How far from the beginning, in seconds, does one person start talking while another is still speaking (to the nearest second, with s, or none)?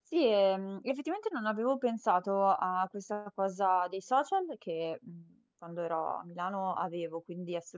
none